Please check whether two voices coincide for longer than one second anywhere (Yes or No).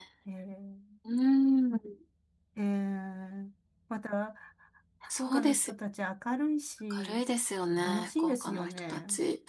Yes